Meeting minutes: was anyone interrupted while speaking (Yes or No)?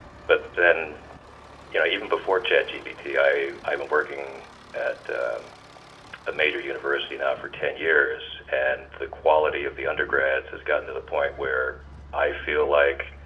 No